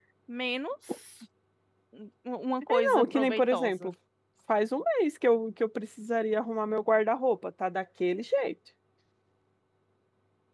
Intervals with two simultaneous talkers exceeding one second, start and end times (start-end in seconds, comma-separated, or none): 2.6-3.9